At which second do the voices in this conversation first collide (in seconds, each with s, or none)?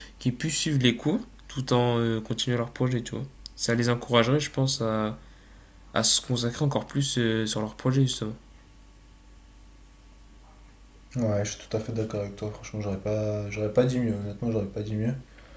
none